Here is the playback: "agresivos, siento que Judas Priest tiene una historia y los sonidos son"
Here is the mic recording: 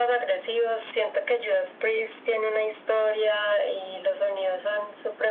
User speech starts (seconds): none

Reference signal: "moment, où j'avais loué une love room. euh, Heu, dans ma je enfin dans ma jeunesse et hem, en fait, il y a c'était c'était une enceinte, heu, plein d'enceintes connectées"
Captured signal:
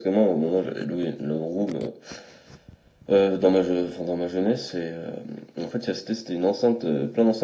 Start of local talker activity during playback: none

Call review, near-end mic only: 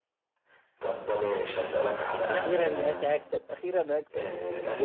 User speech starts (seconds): 2.3 s

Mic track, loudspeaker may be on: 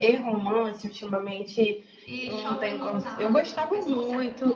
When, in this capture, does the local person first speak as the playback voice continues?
2.1 s

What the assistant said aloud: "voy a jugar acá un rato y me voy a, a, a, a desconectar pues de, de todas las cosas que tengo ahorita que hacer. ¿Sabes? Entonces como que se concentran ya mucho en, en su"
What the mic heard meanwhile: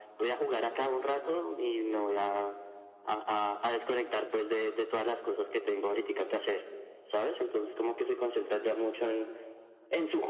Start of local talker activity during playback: none

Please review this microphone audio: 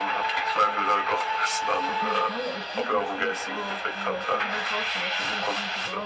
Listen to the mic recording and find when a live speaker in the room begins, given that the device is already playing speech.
1.9 s

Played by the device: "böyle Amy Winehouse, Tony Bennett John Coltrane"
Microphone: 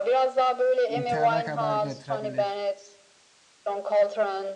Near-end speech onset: 0.9 s

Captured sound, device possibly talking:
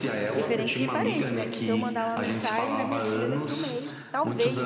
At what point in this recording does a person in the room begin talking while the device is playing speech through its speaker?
0.3 s

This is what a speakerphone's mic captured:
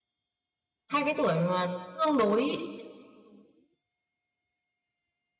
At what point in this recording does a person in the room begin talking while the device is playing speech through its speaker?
0.9 s

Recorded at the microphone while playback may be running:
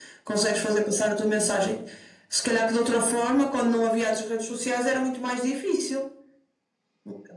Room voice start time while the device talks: none

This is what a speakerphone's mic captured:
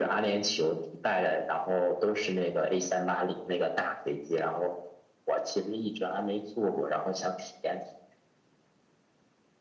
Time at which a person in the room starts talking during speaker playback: none

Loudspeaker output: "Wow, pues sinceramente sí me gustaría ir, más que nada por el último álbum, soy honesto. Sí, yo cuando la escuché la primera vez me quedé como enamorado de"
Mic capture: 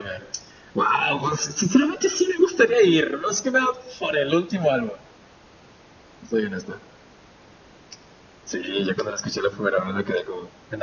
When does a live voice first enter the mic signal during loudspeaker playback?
none

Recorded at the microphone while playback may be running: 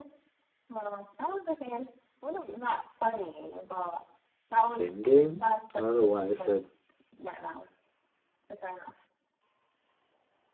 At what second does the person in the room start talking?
4.6 s

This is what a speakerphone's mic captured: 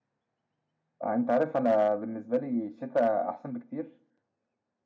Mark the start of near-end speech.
1.0 s

